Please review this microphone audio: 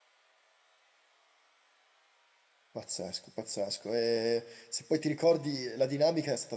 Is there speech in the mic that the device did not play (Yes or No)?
Yes